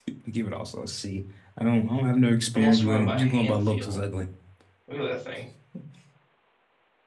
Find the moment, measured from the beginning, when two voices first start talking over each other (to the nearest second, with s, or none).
3 s